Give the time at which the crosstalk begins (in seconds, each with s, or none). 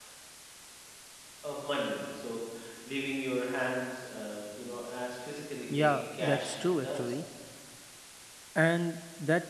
5.7 s